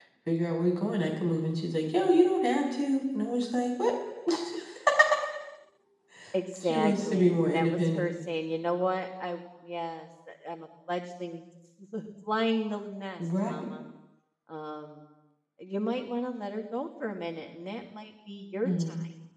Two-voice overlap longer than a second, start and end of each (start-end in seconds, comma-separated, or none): 6.6-8.0